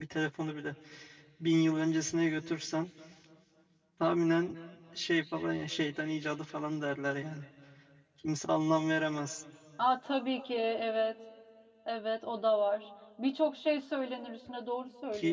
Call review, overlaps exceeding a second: none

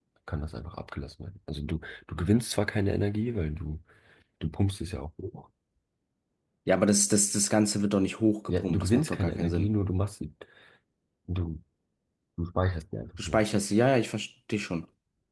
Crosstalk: present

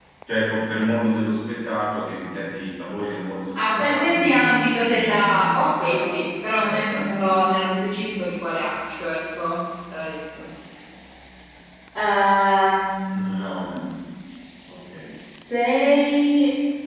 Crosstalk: present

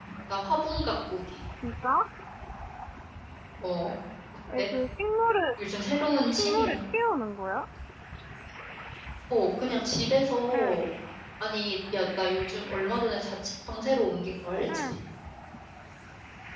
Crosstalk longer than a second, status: none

